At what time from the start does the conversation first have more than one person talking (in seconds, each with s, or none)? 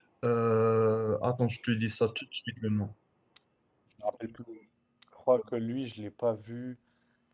none